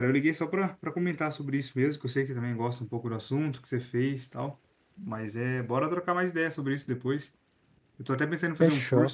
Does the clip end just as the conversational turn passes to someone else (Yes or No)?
No